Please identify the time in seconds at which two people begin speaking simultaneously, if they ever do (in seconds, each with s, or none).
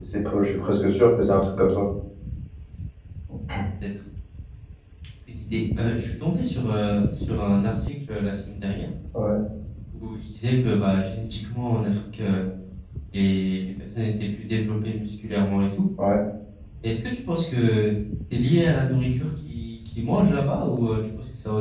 none